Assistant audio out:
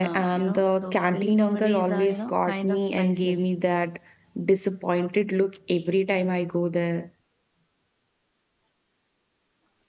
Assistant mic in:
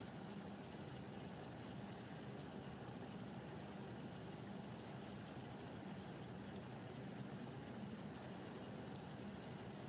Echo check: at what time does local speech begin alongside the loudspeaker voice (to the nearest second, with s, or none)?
none